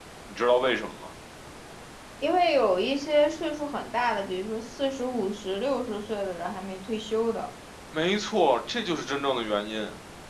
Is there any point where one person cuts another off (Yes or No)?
No